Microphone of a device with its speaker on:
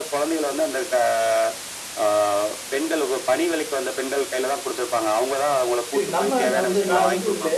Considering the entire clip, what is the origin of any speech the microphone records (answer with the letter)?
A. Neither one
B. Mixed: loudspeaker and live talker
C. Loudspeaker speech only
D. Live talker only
B